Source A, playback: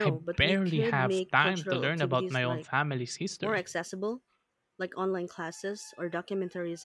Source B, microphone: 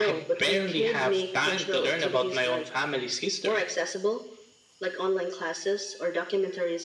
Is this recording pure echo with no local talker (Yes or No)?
Yes